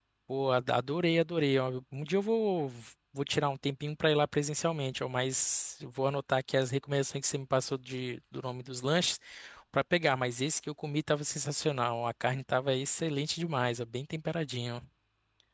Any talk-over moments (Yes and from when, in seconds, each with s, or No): No